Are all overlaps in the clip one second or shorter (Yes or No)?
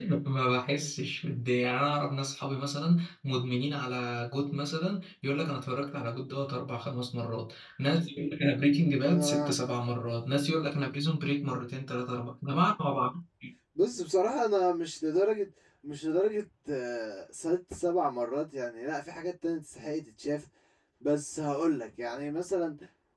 Yes